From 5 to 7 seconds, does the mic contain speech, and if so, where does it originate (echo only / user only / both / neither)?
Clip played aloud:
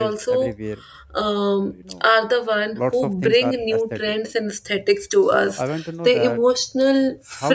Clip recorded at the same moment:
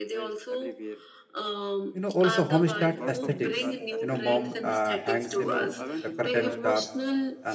both